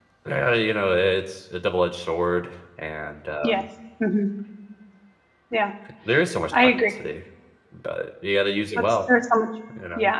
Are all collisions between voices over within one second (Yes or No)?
Yes